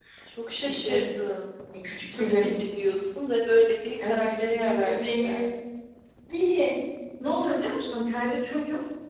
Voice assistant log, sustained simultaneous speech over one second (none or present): present